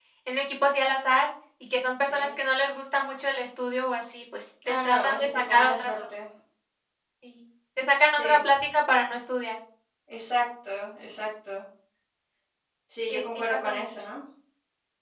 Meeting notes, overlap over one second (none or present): present